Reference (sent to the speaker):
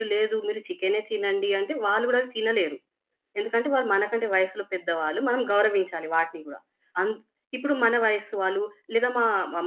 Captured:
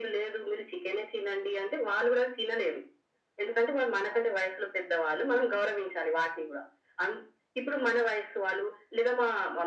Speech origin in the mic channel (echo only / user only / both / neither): echo only